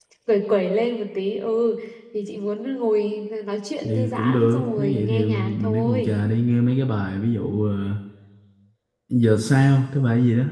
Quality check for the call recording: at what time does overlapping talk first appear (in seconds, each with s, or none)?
3.8 s